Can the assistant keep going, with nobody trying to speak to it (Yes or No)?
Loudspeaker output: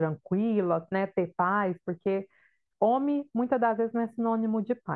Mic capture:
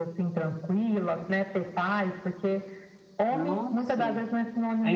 No